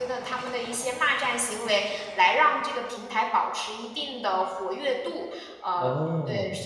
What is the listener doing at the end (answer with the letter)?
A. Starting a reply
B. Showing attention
B